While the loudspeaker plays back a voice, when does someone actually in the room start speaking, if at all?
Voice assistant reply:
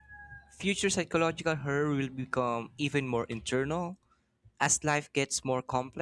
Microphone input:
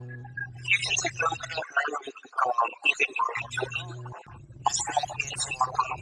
none

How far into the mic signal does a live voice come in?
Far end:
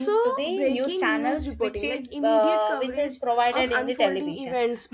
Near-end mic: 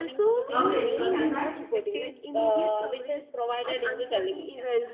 0.5 s

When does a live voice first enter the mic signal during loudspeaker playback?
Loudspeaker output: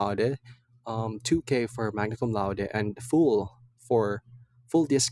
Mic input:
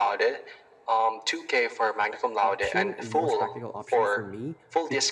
2.4 s

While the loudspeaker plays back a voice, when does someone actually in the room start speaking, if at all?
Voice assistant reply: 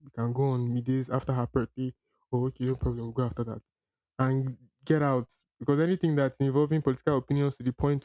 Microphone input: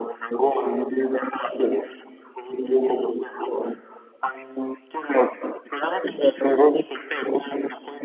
none

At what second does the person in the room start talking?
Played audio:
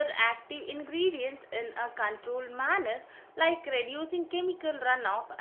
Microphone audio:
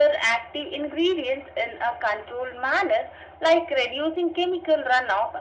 none

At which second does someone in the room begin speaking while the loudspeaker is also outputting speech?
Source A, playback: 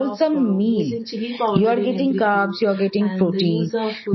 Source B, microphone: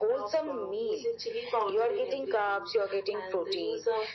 none

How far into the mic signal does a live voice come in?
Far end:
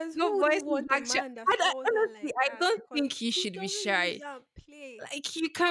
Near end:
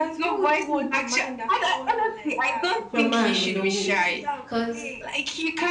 2.9 s

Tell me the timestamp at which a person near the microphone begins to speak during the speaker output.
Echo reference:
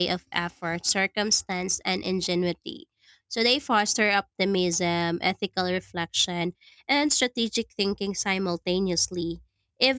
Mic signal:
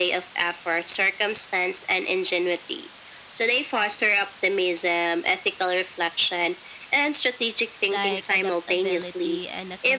7.9 s

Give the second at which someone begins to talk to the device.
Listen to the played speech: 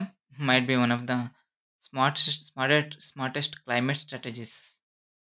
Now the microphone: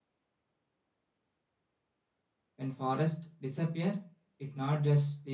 2.6 s

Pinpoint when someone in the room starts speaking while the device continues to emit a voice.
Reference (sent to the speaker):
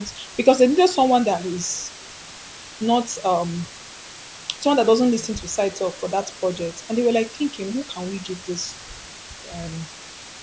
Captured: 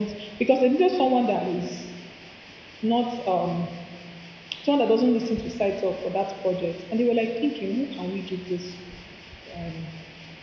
none

